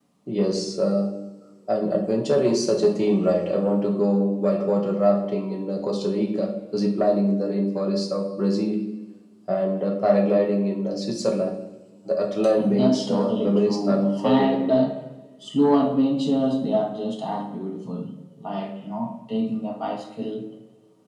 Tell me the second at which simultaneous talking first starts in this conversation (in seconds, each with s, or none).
12.6 s